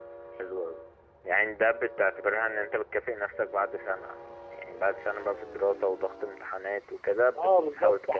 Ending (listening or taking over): taking over